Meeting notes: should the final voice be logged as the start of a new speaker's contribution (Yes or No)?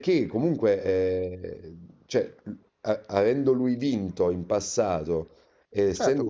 Yes